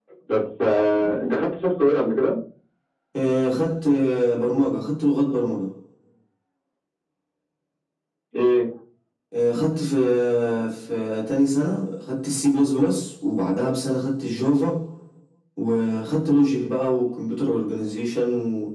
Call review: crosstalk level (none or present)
none